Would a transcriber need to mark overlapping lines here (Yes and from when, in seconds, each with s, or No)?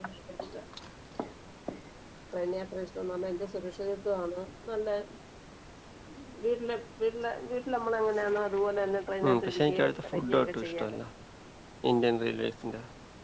Yes, from 9.2 s